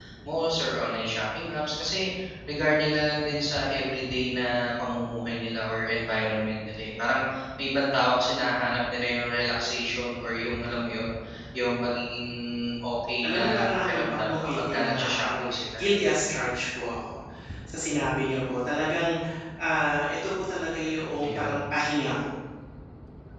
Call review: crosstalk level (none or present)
present